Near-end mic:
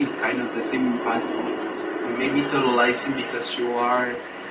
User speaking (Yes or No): No